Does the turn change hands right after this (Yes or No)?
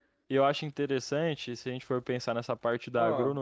No